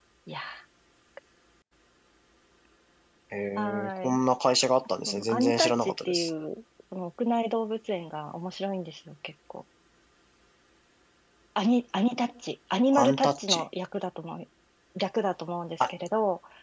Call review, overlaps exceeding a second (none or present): present